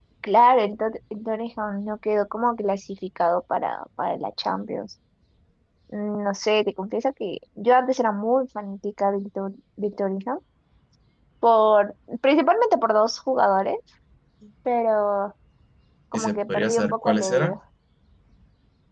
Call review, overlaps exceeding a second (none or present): present